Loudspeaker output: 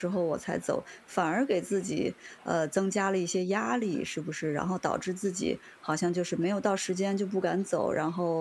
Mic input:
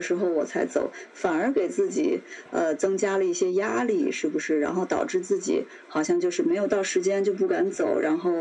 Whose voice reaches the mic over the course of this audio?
echo only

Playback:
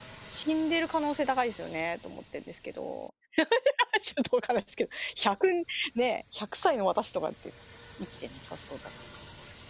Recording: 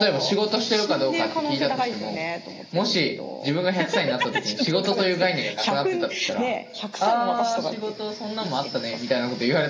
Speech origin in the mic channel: both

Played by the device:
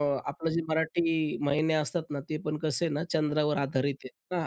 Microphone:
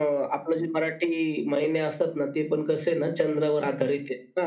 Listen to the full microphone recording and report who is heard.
echo only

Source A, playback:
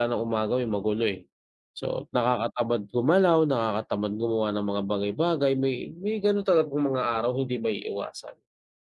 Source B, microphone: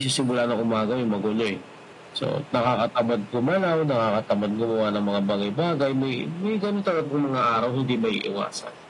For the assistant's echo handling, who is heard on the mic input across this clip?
echo only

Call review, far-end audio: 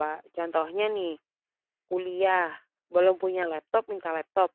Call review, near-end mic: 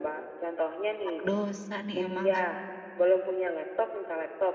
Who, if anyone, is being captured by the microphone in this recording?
both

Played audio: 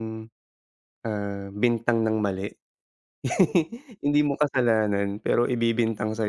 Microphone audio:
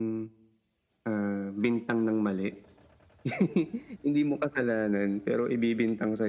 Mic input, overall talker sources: echo only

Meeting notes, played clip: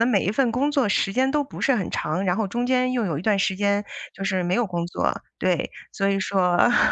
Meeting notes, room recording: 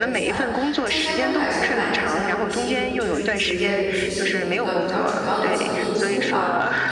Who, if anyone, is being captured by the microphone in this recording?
both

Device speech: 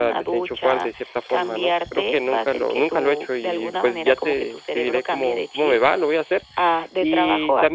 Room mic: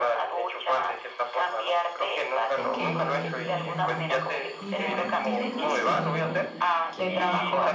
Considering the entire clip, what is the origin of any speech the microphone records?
both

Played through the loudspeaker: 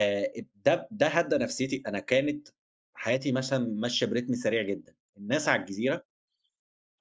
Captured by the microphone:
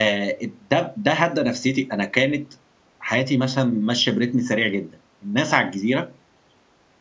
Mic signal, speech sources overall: echo only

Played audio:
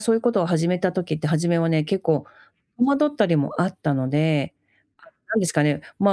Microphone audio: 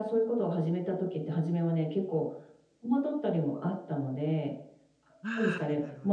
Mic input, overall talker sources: both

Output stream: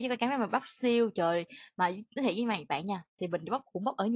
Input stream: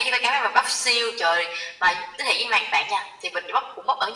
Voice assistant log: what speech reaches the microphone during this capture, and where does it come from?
echo only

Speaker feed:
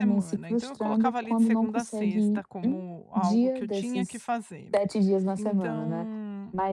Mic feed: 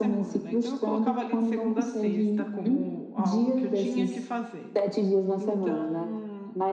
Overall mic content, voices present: echo only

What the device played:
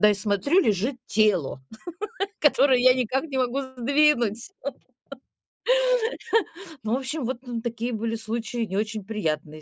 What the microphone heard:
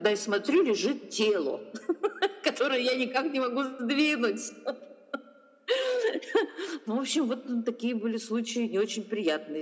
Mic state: echo only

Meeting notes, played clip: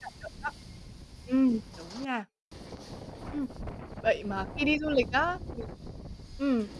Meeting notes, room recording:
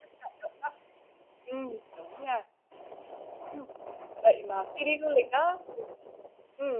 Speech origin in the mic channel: echo only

